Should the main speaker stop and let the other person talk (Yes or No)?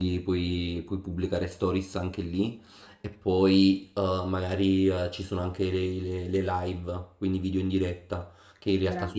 No